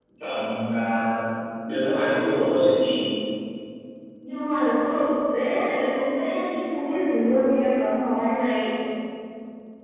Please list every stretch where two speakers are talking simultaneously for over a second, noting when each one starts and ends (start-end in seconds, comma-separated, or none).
none